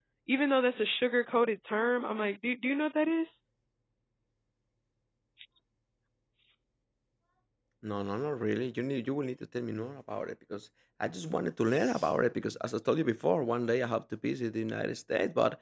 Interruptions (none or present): none